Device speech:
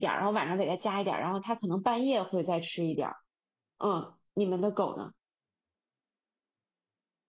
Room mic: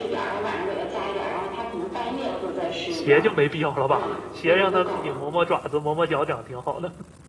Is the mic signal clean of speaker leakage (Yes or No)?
No